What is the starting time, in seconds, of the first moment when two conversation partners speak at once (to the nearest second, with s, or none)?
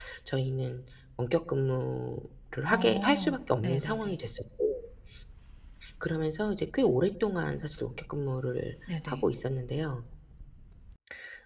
3 s